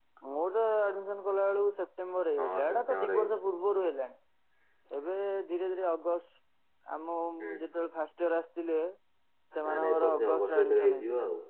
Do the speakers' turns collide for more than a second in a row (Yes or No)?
Yes